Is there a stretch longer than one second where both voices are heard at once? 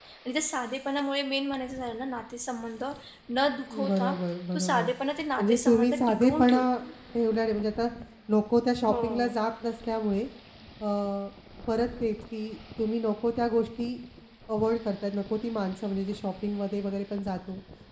Yes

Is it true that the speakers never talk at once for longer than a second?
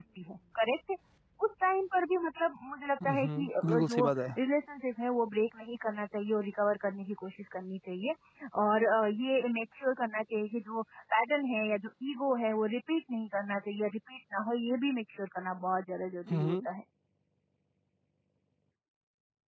No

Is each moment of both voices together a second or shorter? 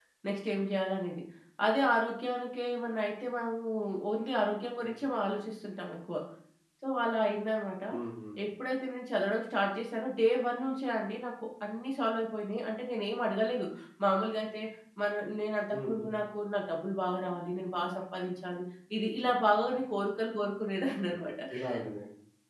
Yes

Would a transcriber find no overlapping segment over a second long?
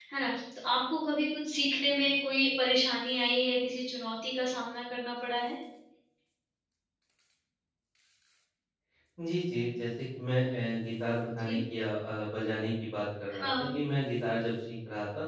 Yes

